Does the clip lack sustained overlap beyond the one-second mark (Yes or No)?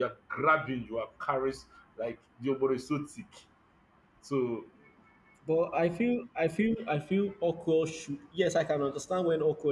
Yes